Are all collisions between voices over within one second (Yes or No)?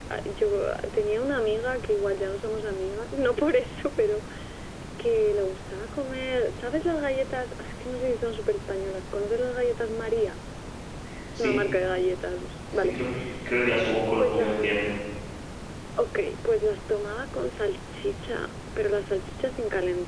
Yes